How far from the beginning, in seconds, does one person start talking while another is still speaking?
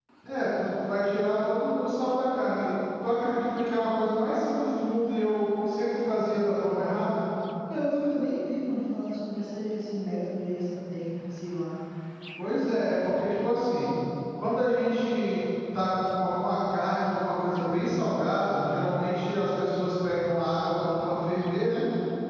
none

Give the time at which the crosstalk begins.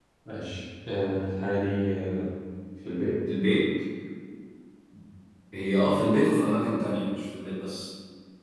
none

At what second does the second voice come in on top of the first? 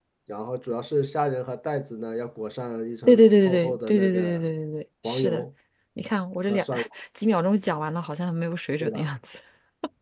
3 s

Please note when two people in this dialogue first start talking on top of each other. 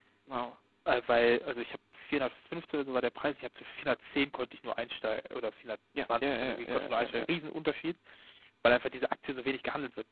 6 s

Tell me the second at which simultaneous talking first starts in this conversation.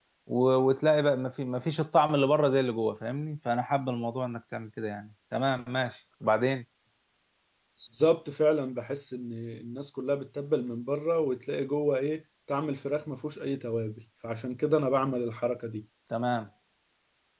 none

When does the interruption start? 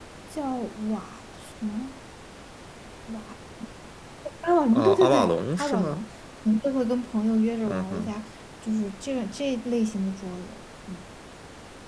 5 s

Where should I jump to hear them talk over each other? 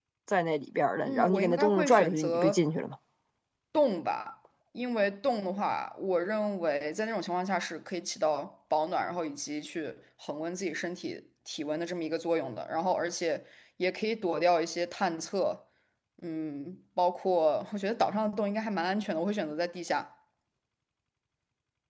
1 s

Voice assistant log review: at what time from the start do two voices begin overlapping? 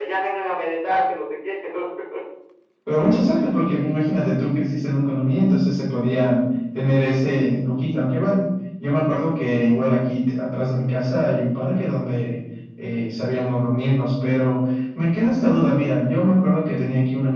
none

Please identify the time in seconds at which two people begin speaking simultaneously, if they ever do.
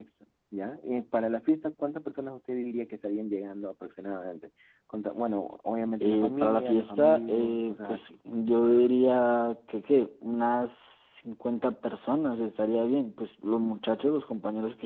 6 s

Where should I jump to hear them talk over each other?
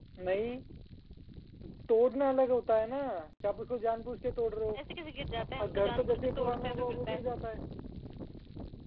5 s

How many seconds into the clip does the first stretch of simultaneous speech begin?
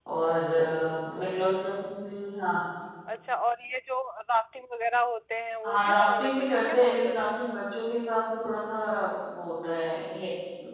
6 s

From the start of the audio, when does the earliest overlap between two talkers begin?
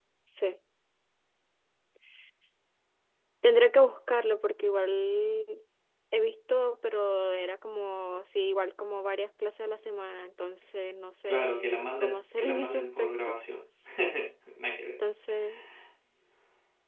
11 s

